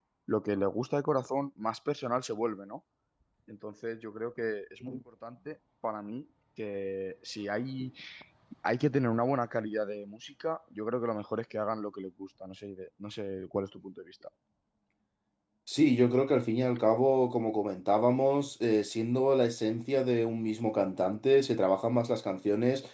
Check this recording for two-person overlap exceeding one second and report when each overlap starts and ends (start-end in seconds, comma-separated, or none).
none